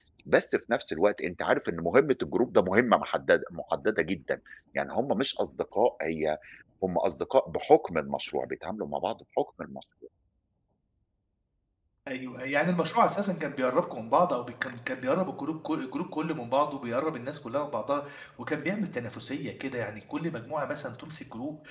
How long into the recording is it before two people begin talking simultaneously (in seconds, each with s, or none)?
none